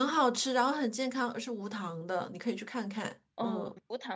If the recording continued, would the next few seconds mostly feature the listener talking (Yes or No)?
Yes